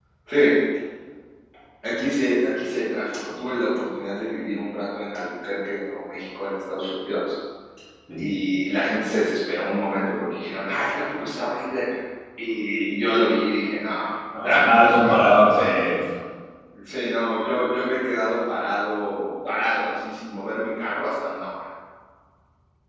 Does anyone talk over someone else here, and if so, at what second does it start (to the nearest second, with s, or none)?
14 s